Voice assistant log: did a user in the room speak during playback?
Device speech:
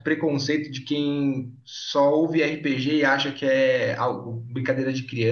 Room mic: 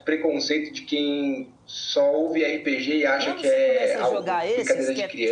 Yes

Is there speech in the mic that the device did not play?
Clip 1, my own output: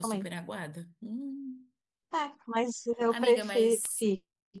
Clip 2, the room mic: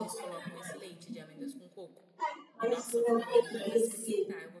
Yes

